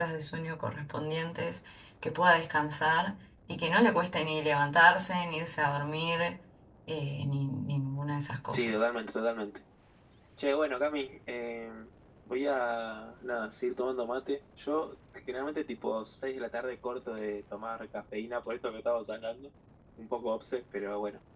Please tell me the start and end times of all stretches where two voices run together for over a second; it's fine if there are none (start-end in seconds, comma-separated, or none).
none